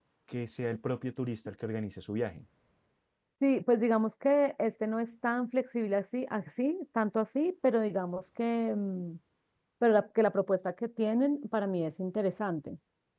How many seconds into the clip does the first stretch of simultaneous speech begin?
none

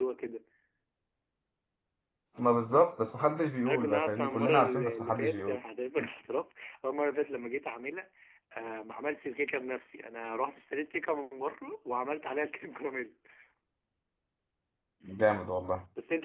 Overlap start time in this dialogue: 4 s

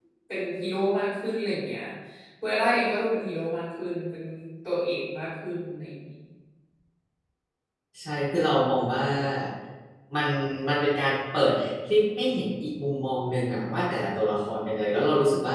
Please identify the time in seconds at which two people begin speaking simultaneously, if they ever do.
none

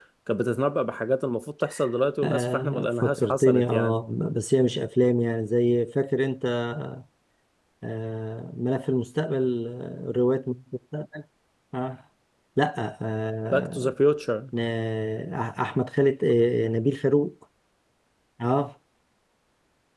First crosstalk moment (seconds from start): 2 s

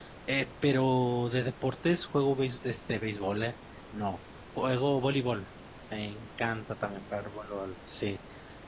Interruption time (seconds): none

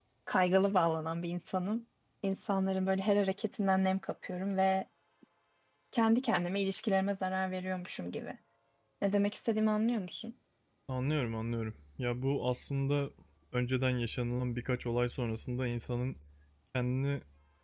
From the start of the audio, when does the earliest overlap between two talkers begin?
none

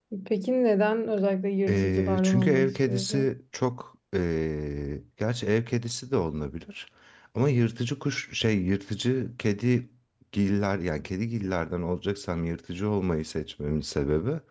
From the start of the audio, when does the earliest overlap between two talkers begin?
2 s

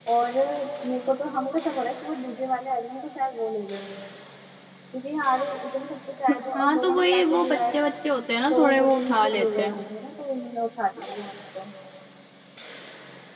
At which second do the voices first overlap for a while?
7 s

